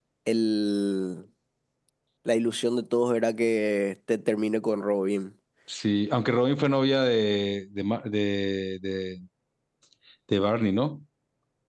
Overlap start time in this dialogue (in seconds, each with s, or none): none